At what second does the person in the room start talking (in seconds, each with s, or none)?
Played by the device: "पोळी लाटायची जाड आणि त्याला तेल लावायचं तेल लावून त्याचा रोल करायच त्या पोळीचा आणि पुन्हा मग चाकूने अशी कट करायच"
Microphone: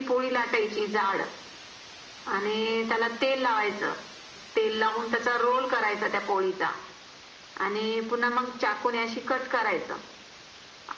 none